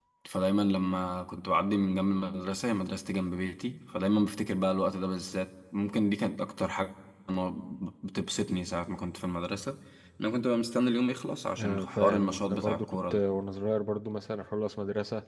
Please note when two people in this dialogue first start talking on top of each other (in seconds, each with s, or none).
11.6 s